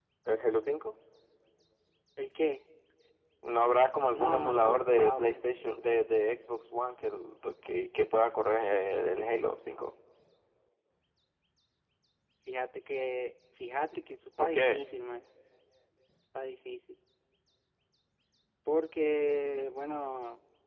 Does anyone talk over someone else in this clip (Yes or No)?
Yes